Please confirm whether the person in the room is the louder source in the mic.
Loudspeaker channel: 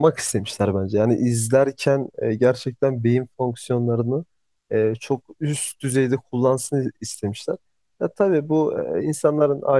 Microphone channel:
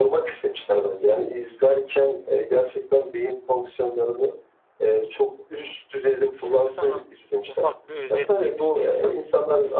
No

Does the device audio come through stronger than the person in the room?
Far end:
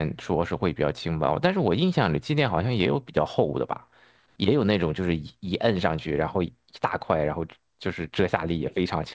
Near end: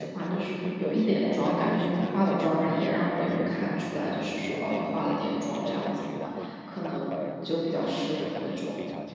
No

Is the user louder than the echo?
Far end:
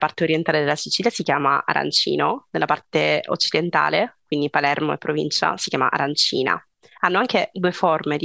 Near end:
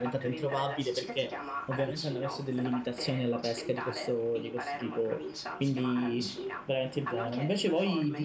Yes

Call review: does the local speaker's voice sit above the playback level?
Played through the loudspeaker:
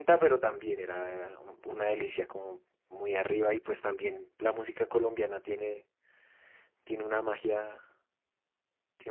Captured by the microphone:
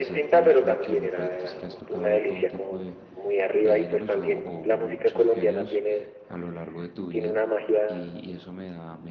No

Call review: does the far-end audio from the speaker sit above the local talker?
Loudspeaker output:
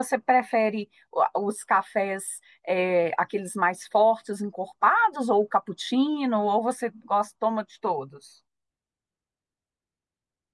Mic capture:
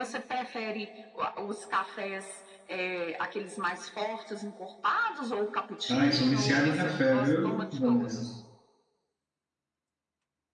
No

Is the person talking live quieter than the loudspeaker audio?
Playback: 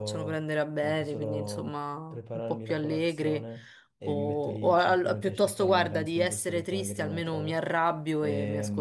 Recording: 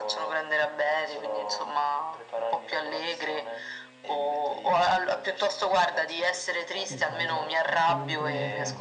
Yes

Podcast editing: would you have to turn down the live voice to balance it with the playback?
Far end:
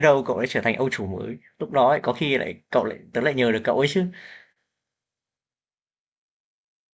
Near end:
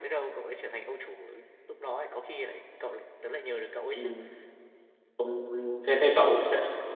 Yes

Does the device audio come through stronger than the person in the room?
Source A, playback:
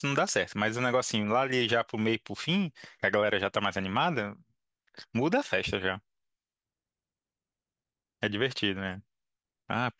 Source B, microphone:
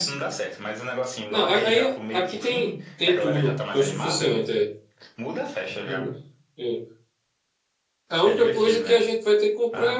No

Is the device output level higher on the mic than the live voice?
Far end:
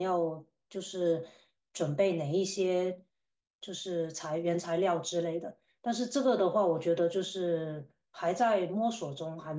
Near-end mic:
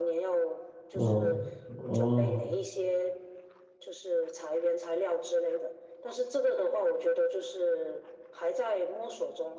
No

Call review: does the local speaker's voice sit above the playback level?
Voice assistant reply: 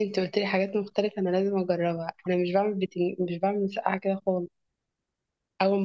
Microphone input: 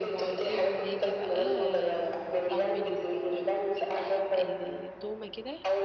No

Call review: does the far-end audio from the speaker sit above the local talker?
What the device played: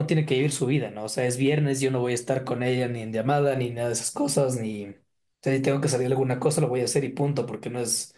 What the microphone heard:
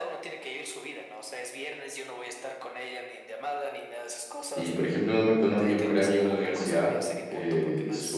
No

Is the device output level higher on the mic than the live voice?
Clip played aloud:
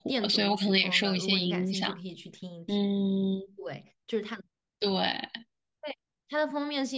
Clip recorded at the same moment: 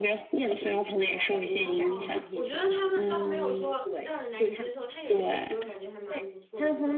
Yes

